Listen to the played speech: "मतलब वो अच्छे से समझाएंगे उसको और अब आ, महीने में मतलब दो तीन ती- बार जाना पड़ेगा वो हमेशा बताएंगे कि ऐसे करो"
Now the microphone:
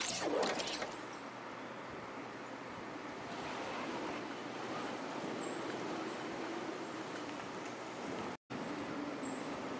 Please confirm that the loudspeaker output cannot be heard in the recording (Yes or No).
Yes